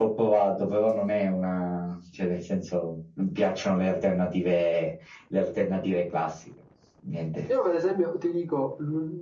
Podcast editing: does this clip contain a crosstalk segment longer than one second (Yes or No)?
No